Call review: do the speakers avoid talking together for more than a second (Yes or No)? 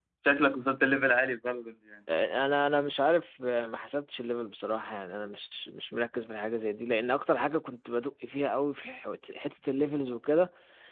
Yes